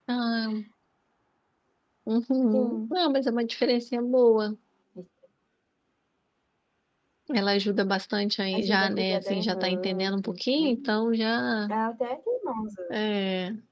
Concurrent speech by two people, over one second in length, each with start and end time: 8.6-10.9

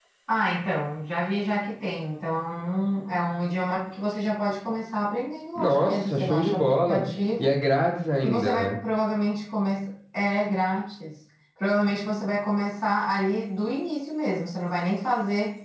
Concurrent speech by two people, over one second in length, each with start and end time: 5.5-7.0

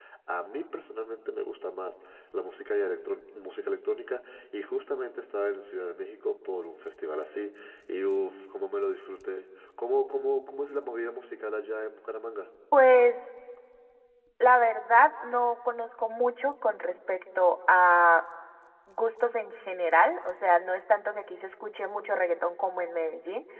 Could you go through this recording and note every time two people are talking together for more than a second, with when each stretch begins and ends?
none

